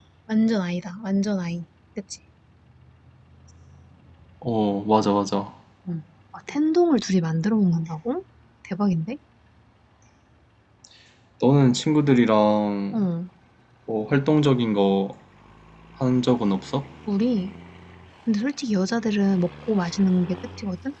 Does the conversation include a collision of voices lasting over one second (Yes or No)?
No